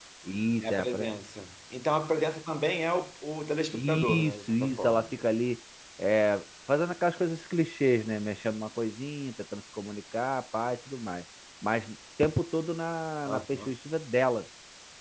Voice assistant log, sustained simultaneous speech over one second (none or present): present